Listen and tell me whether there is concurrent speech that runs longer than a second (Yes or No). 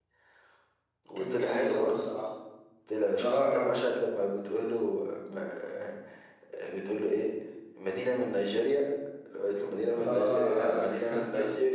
Yes